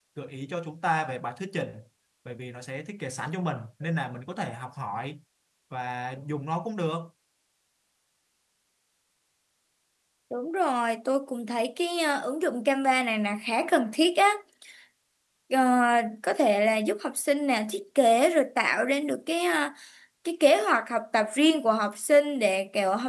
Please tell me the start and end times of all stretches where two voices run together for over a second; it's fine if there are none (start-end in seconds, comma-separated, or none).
none